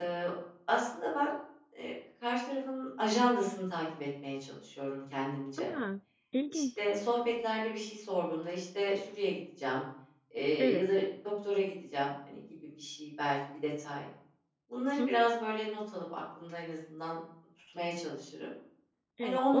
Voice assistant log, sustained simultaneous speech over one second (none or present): none